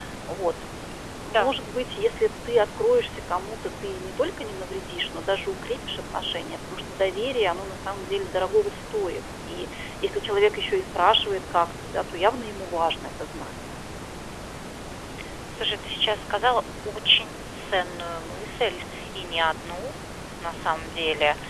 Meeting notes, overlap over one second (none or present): none